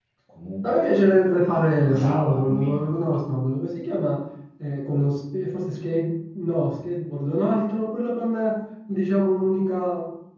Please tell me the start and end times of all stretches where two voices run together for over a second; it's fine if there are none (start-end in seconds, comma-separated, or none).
0.6-2.9